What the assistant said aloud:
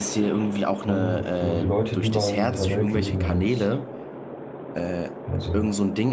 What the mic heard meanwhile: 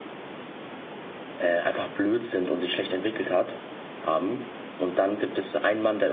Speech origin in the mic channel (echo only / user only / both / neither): user only